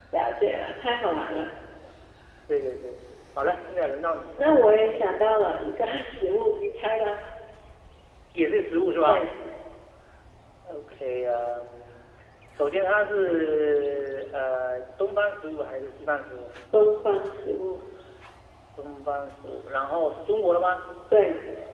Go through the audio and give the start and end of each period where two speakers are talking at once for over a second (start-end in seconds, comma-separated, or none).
none